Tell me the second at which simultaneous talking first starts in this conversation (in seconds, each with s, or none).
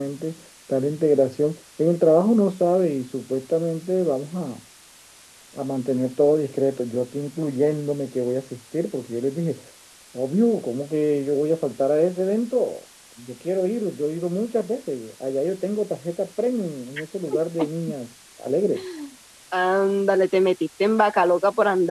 none